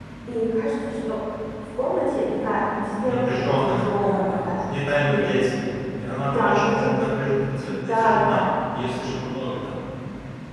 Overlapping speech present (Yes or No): Yes